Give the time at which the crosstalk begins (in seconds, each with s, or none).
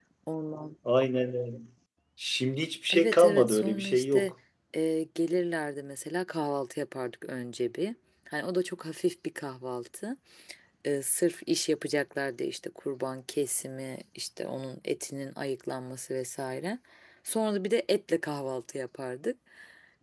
2.9 s